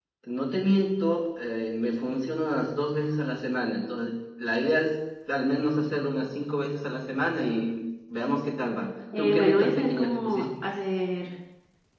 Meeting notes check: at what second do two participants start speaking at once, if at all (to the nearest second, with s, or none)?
9 s